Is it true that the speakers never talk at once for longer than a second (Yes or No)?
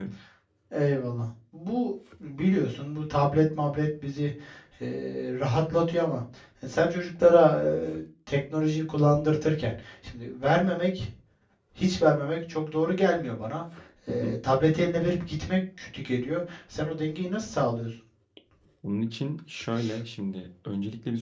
Yes